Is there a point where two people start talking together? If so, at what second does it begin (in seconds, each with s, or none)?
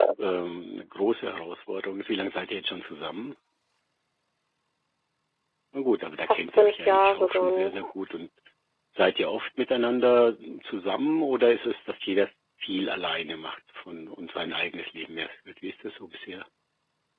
6.3 s